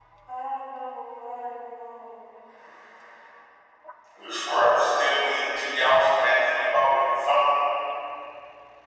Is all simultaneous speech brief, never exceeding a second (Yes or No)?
Yes